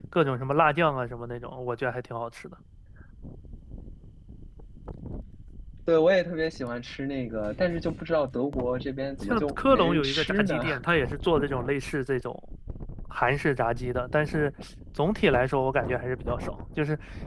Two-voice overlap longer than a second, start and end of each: 9.2-10.6

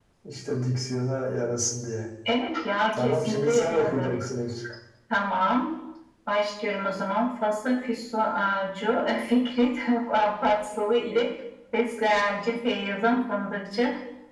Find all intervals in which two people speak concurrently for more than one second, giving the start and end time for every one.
2.9-4.1

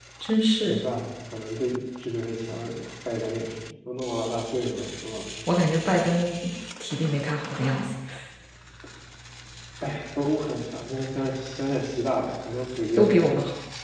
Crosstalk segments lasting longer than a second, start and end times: none

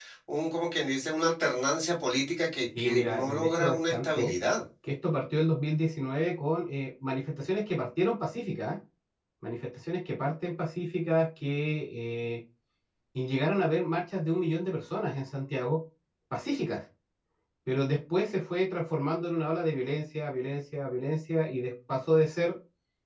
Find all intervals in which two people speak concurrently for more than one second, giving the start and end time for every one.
2.8-4.3

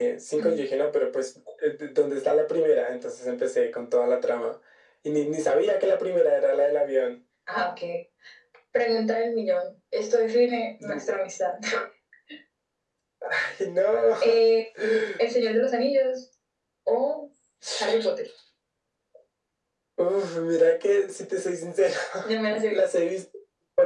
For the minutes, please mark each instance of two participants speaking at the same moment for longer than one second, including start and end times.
none

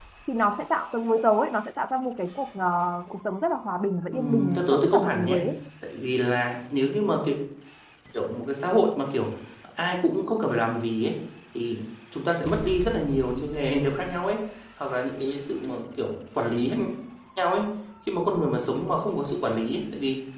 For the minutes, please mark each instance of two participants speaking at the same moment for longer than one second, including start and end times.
4.1-5.4

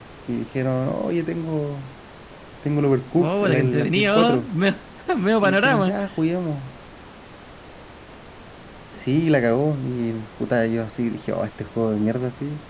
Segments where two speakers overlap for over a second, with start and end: 3.2-4.5

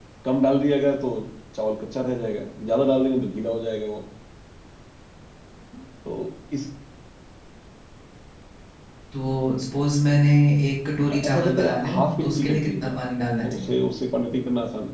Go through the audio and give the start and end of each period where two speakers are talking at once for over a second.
11.1-13.0

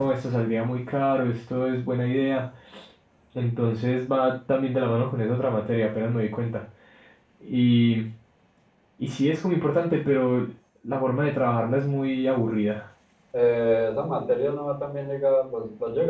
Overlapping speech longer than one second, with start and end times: none

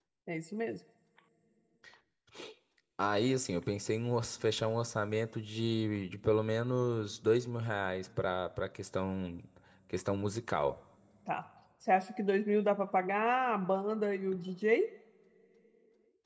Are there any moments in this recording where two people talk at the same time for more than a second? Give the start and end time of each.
none

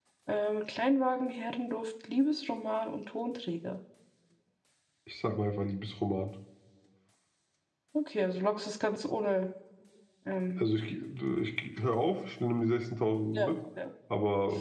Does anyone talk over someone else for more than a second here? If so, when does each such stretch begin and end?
none

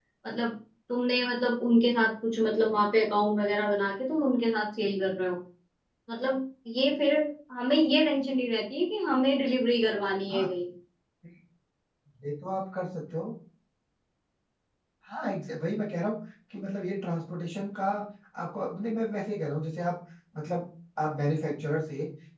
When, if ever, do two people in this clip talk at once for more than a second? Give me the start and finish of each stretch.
none

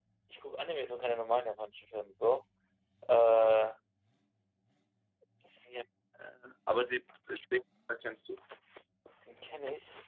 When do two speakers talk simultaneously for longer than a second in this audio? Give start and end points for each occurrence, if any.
none

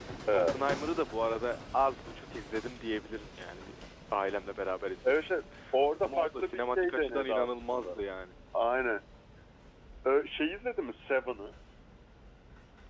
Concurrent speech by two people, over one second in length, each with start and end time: 6.0-8.0

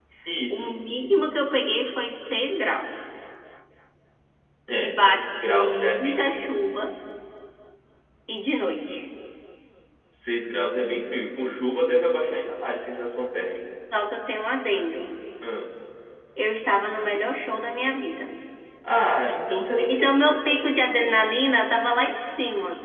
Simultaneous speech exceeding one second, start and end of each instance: 4.8-6.4

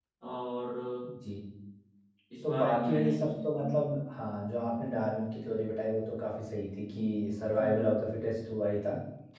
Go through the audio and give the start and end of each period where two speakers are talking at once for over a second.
2.4-3.8

